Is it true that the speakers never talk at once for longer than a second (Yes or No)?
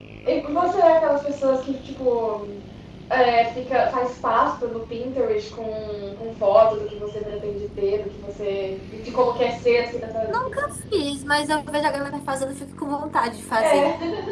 Yes